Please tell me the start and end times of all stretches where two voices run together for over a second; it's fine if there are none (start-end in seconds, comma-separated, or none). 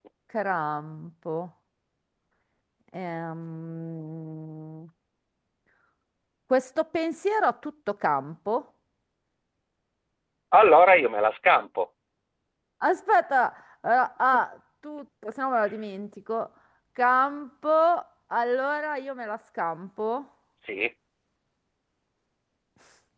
none